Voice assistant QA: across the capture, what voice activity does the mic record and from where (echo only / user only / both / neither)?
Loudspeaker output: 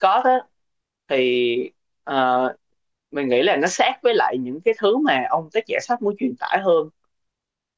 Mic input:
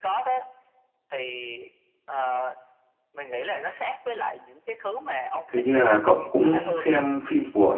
both